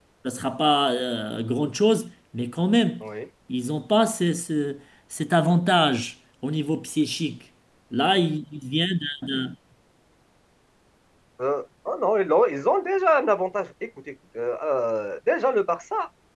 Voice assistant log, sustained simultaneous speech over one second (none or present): none